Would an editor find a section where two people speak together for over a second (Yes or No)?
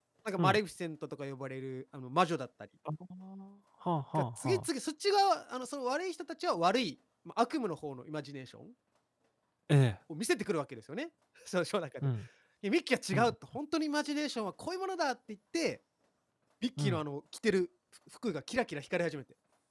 No